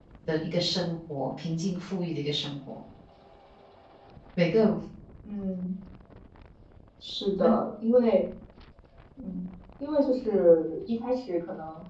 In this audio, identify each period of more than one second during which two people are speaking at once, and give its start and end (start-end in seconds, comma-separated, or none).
none